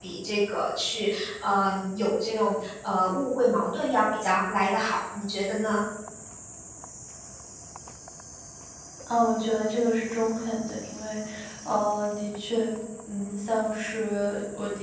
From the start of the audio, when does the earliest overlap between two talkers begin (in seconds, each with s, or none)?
none